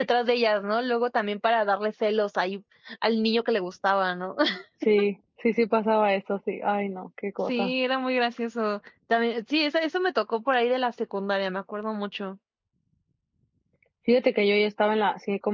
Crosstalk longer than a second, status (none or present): none